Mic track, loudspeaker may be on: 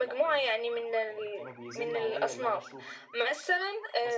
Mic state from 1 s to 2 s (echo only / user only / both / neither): both